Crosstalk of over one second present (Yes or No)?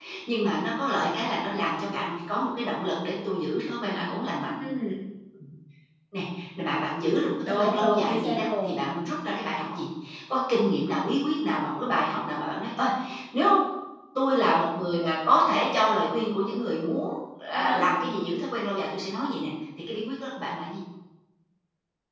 Yes